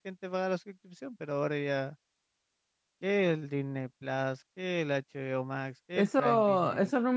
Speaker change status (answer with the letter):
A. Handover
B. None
A